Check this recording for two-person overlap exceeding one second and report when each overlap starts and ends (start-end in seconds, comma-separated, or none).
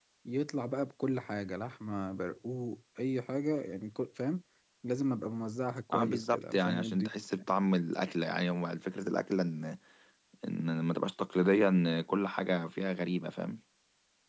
5.9-7.1